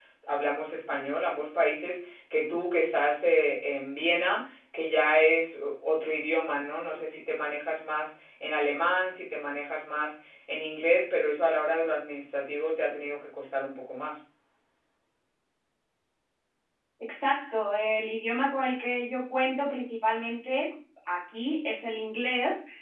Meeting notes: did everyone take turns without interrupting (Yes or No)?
Yes